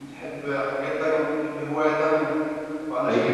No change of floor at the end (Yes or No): Yes